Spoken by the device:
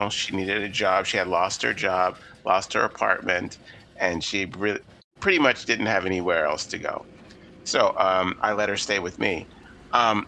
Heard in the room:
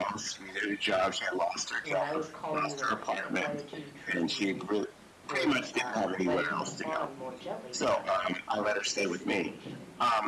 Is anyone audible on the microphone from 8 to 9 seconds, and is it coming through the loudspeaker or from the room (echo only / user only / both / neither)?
both